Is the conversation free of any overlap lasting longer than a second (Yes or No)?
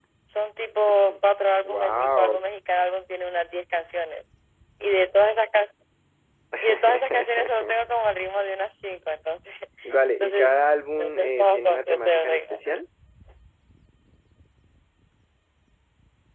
No